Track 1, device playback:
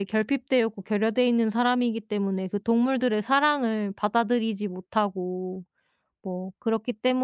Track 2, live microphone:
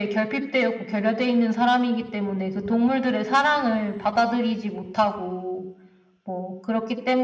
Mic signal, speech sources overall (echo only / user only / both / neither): echo only